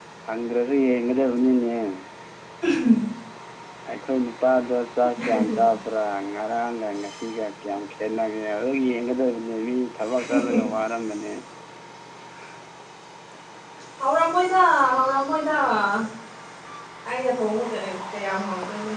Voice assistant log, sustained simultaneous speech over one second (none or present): none